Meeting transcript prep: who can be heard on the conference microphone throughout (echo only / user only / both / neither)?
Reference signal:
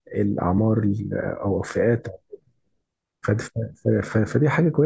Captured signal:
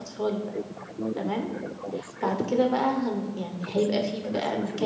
both